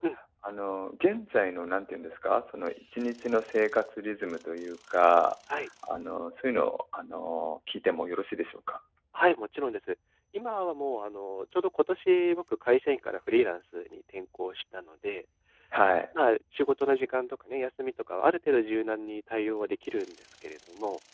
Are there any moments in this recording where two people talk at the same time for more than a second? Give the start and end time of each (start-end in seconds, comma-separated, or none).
none